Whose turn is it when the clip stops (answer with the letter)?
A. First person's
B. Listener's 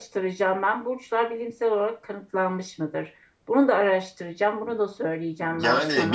B